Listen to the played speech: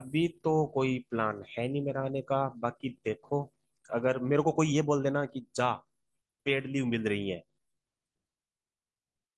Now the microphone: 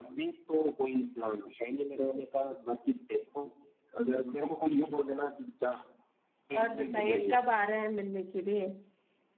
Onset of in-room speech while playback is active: 6.6 s

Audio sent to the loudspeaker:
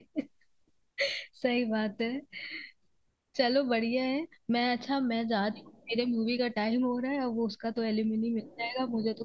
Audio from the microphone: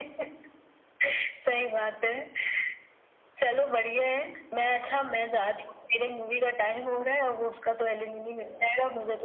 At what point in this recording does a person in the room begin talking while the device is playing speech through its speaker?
none

